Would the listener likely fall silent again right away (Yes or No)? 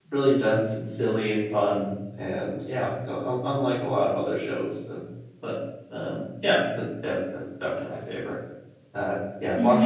No